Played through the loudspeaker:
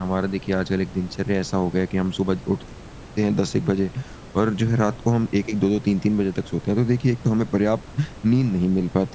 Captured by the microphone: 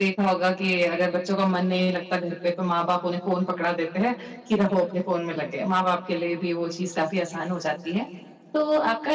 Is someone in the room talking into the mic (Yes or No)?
Yes